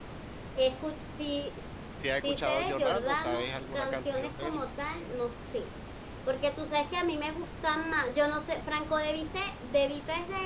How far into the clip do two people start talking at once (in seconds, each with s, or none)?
2.0 s